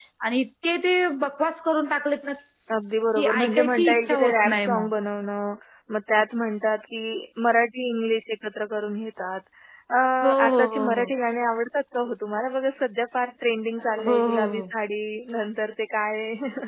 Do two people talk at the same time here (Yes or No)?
Yes